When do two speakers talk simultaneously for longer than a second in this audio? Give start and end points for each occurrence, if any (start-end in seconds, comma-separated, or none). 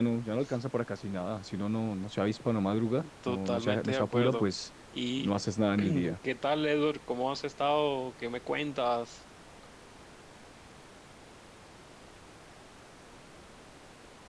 3.3-4.5